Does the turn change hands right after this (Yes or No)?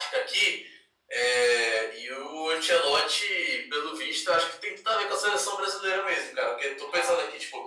No